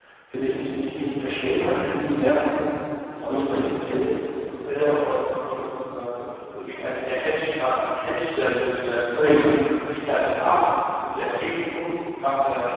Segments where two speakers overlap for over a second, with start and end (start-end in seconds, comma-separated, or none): none